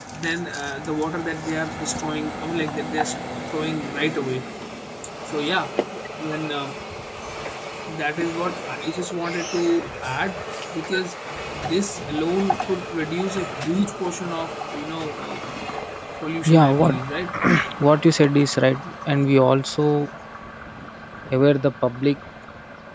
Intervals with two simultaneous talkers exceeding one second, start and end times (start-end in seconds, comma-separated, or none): none